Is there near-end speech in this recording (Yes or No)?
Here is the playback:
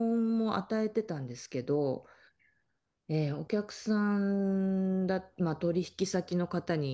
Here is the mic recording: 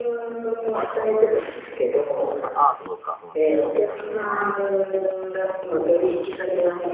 Yes